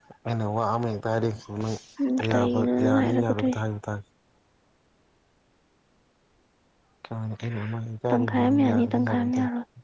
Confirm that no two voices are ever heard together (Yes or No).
No